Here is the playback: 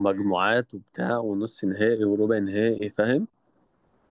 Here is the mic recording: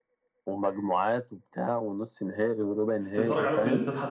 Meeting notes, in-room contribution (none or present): present